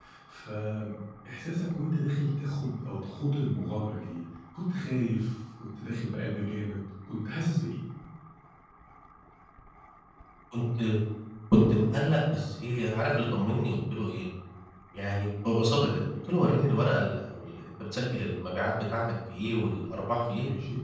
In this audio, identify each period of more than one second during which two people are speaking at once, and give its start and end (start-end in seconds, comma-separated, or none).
none